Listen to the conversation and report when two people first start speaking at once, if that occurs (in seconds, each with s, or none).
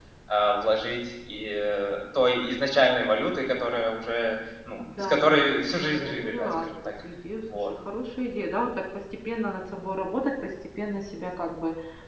5.0 s